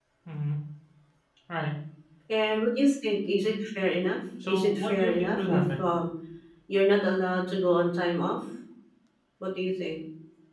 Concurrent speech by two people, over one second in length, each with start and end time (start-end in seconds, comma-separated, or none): 4.5-5.8